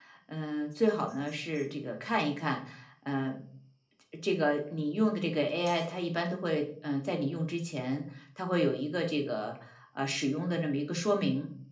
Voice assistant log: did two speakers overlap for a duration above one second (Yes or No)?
No